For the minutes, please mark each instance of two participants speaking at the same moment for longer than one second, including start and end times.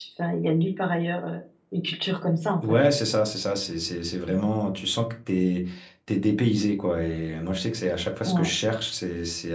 none

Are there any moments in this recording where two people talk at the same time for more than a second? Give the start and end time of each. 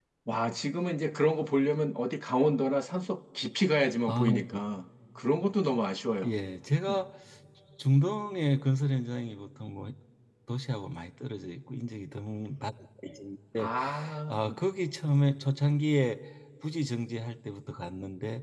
none

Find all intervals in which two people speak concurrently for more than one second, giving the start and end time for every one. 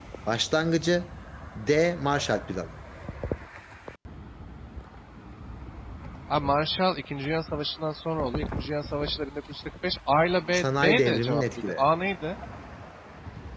10.5-11.8

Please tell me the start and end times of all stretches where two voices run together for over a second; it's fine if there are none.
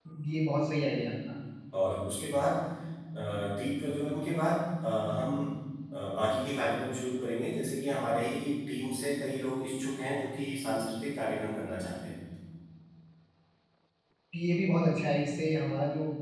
none

